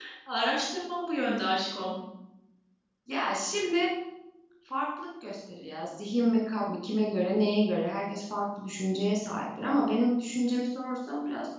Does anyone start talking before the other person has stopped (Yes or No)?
No